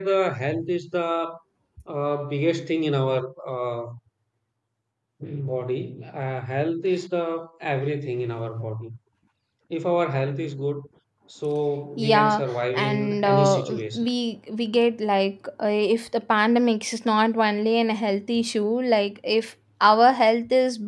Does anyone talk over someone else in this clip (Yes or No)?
Yes